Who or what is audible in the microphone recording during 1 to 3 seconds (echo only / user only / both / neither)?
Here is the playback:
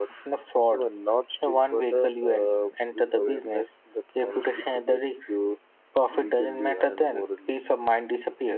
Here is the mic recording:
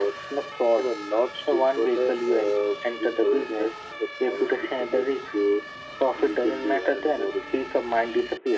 echo only